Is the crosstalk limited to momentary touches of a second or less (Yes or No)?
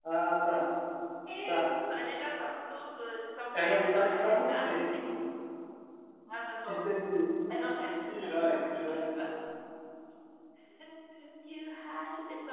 No